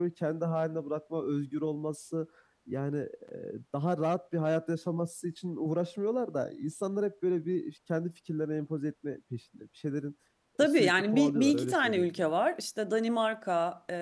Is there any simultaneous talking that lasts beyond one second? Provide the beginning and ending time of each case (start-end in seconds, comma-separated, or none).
10.6-12.3